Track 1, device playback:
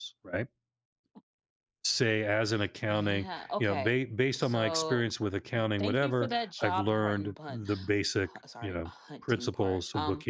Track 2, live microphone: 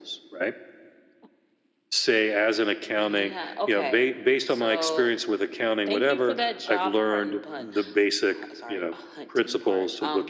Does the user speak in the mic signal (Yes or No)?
No